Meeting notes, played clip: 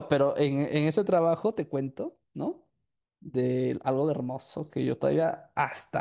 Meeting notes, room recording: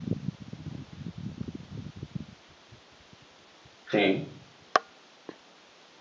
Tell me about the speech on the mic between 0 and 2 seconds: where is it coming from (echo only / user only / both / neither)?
neither